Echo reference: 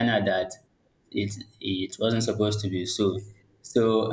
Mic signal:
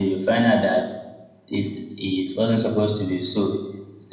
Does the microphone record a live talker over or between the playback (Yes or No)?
No